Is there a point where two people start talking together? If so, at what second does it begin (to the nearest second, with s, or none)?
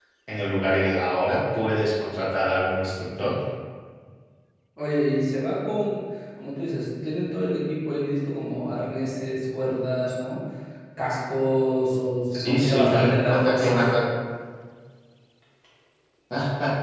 12 s